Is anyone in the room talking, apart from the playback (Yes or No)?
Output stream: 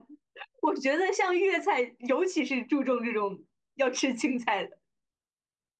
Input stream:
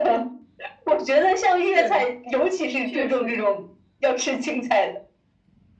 Yes